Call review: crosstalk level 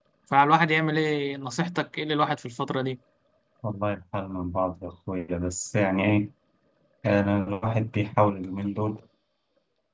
none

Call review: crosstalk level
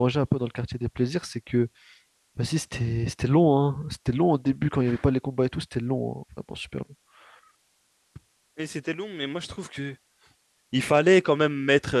none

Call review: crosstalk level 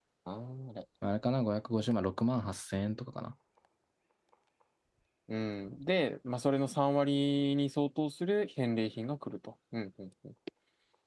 none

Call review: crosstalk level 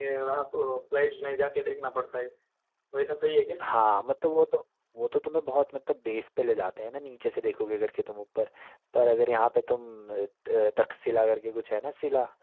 none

